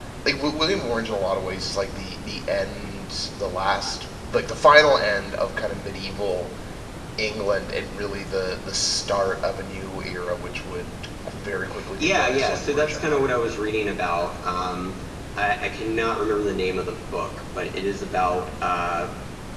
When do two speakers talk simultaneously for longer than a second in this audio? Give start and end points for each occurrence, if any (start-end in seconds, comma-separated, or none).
11.9-13.2